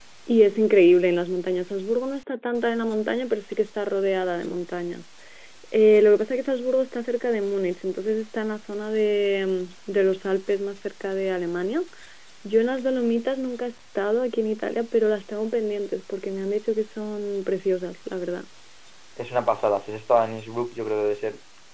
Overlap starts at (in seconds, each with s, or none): none